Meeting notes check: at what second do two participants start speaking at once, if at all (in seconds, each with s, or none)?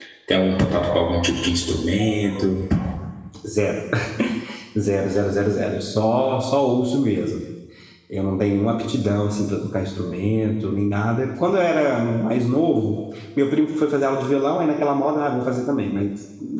none